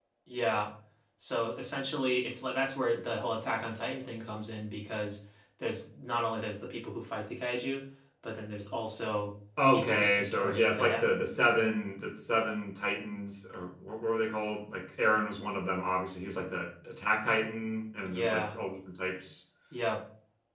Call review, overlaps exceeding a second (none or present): present